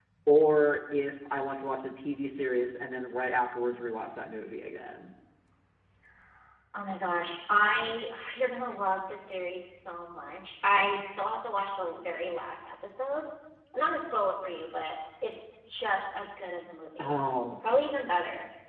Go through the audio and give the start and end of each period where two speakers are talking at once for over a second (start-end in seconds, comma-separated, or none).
none